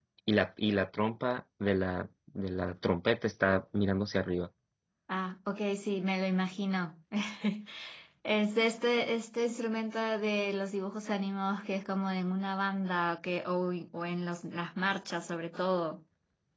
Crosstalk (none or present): none